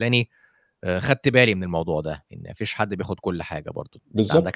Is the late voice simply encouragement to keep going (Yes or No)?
No